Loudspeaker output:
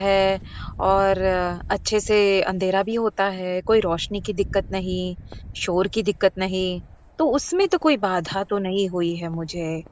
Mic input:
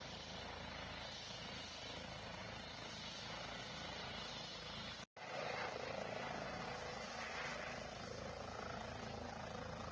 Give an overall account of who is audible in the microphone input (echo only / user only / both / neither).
neither